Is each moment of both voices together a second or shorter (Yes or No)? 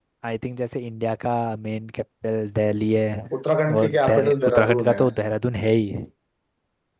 No